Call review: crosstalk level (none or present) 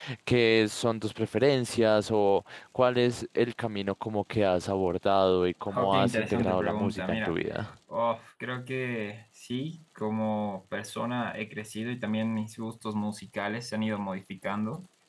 present